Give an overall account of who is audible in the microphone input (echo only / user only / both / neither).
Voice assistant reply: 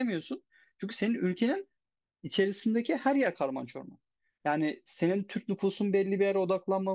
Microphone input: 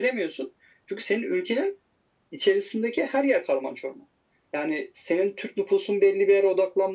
echo only